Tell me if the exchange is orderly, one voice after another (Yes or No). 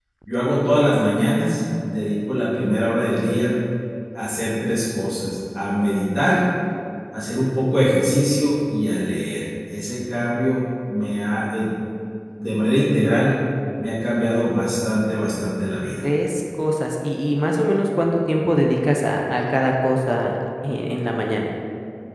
Yes